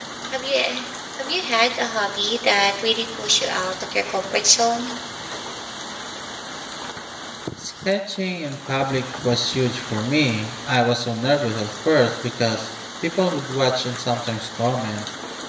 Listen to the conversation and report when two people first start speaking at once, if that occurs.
none

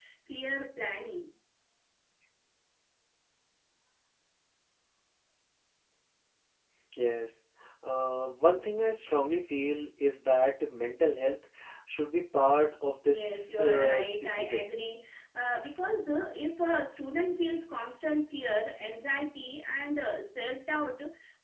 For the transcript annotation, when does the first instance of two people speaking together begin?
13 s

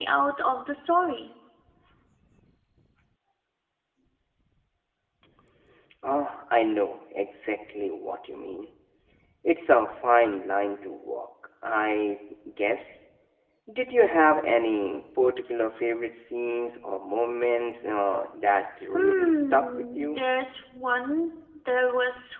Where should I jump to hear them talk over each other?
19 s

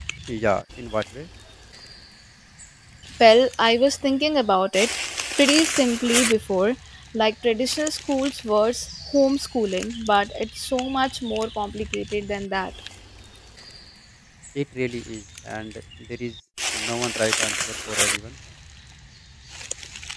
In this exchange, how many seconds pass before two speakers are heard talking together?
none

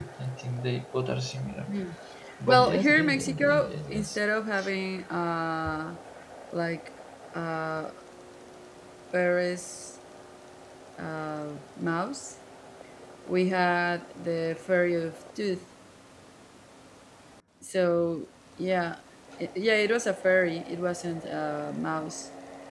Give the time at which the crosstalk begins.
2 s

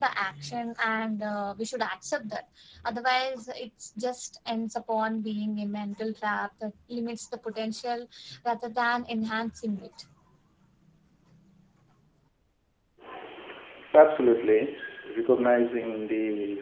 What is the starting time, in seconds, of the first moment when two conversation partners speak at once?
none

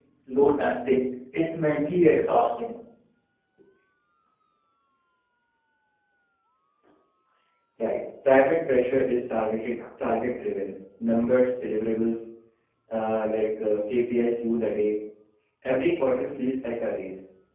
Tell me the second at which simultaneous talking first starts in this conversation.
none

